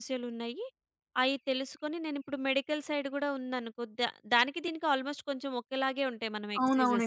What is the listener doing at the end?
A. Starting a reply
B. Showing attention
A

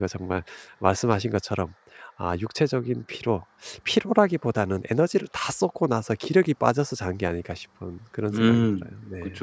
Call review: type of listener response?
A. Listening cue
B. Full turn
B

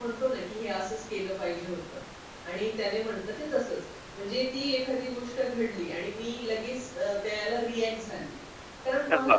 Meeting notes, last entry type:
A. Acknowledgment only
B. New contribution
A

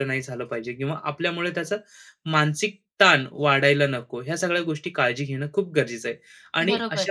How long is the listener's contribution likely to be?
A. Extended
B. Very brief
B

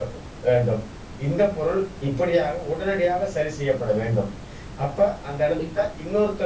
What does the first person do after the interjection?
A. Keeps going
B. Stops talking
A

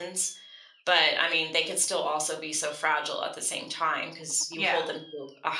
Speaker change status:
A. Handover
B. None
B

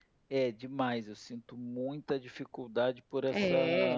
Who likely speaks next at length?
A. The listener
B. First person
B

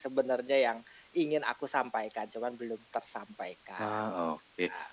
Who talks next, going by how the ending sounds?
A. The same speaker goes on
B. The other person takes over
B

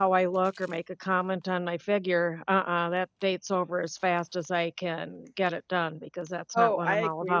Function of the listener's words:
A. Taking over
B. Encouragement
A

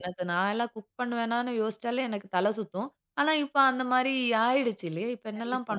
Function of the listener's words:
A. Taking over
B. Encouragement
A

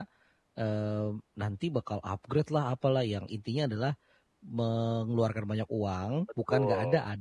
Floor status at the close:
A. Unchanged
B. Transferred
A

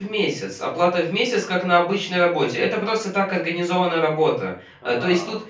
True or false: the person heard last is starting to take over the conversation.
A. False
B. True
A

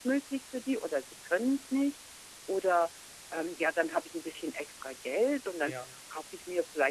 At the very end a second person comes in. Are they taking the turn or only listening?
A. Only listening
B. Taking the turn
A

